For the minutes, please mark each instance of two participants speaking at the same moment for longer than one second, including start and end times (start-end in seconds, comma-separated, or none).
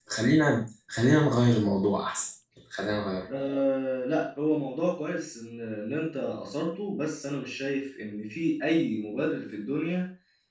none